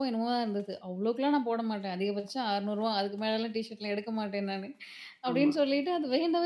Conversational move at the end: listening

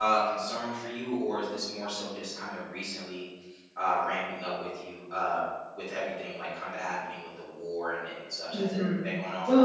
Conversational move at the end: taking over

